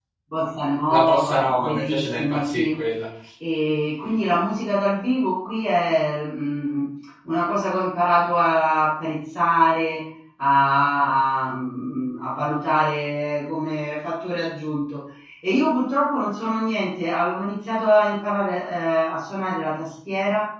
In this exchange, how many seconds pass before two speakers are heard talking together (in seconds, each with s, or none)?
0.9 s